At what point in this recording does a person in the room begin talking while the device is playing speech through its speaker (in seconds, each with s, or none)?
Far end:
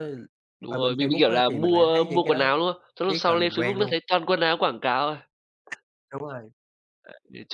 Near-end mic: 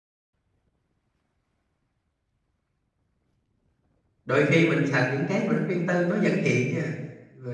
4.2 s